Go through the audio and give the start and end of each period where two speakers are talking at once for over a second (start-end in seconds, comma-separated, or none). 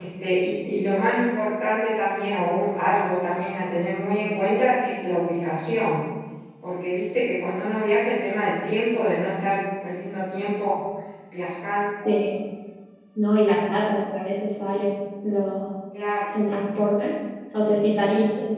none